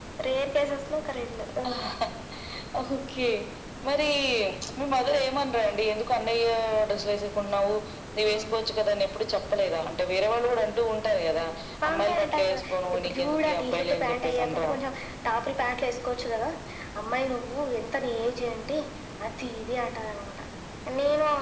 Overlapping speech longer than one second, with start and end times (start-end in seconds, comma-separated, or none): 11.9-14.7